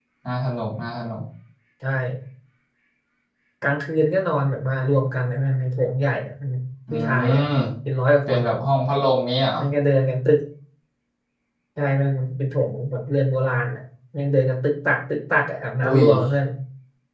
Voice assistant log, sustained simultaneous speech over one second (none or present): none